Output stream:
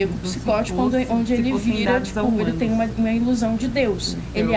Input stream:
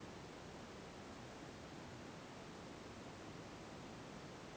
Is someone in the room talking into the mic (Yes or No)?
No